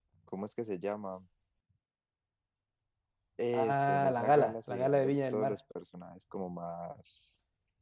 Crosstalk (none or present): present